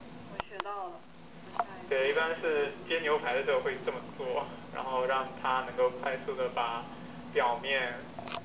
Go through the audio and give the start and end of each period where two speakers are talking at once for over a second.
1.9-4.0

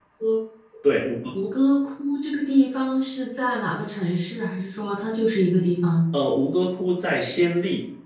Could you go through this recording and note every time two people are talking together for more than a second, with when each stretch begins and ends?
none

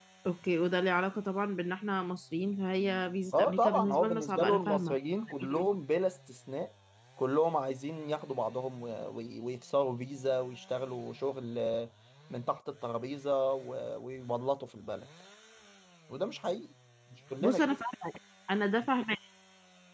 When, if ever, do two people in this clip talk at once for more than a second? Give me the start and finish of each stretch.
3.4-5.0

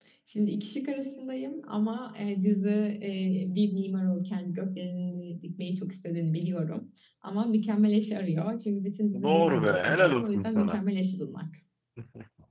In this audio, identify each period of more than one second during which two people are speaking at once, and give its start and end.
9.2-10.8

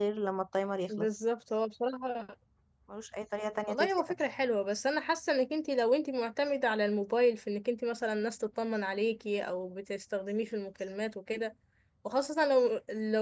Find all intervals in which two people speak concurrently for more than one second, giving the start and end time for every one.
none

